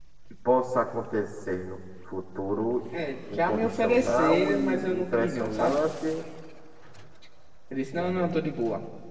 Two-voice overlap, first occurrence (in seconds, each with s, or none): 3.3 s